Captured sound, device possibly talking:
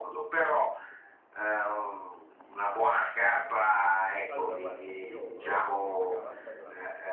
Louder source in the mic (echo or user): echo